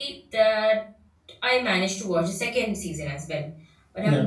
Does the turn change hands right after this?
No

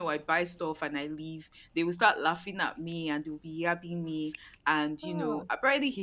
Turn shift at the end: No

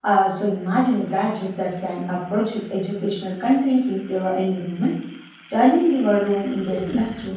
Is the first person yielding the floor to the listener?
Yes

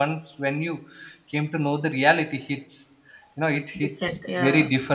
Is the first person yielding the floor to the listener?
No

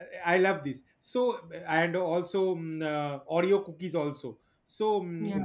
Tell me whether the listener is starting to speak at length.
No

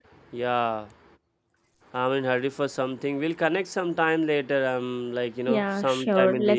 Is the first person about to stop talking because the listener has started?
Yes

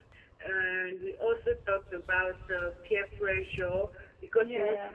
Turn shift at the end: No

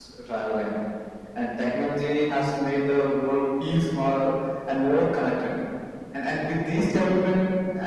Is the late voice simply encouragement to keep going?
Yes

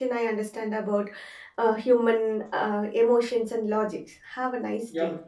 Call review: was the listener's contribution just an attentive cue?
No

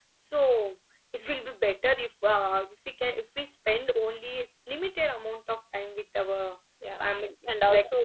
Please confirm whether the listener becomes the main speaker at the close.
Yes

